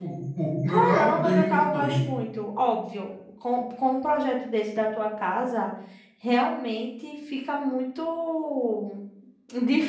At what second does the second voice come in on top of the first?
0.7 s

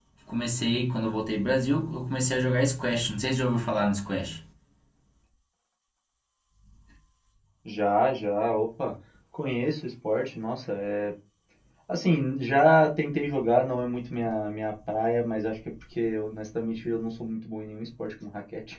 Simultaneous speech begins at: none

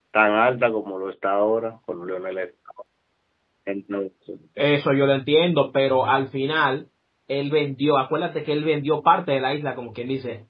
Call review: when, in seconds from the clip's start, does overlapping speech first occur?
none

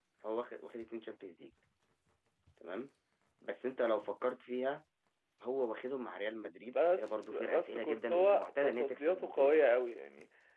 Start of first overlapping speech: 6.7 s

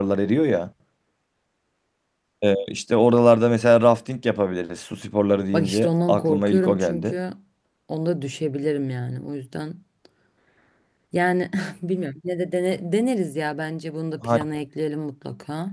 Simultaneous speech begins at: 5.5 s

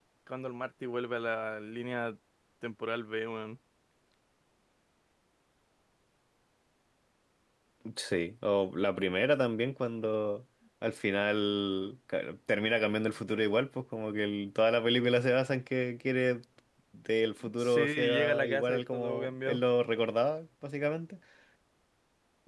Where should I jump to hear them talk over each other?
17.6 s

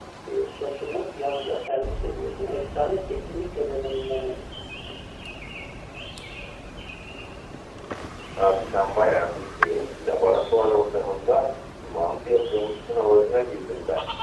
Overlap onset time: none

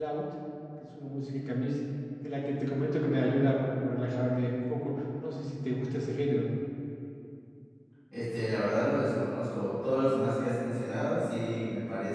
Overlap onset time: none

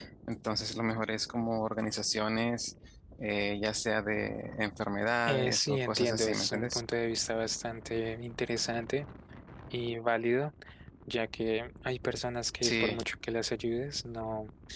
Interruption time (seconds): 5.3 s

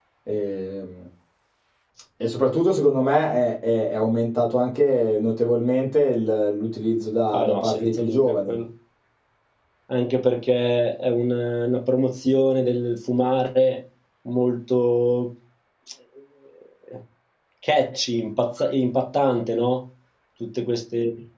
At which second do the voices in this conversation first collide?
7.3 s

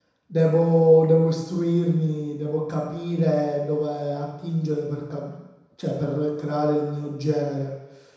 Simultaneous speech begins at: none

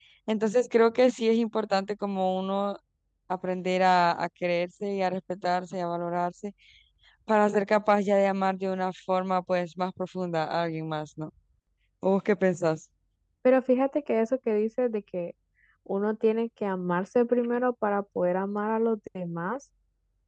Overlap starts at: none

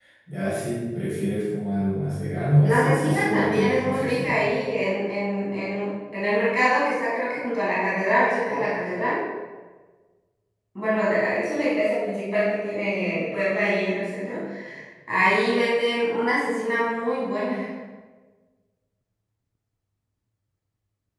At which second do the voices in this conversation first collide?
2.6 s

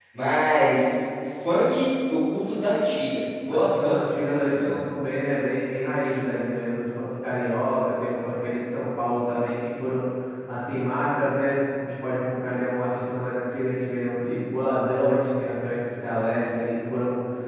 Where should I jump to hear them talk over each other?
3.5 s

